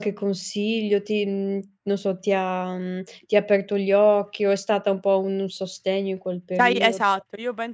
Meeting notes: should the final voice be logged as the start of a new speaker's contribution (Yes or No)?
Yes